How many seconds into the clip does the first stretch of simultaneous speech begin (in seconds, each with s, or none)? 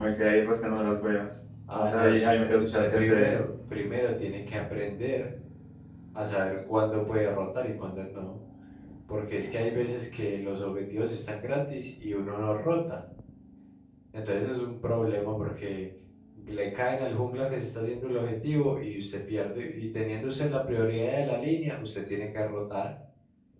1.7 s